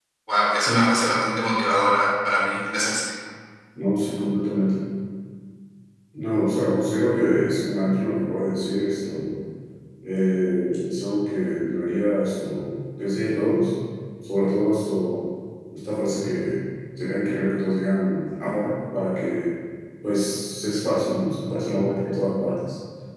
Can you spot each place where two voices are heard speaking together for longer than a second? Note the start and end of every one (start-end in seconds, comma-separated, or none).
none